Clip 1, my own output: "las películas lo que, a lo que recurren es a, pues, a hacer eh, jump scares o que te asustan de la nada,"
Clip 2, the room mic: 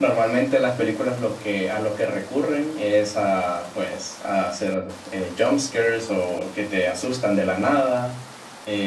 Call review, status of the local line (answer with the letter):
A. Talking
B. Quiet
B